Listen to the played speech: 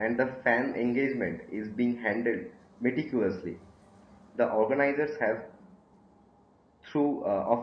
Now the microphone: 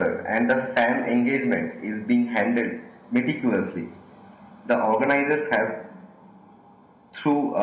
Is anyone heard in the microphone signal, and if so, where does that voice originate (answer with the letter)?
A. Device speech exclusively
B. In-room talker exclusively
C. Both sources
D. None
A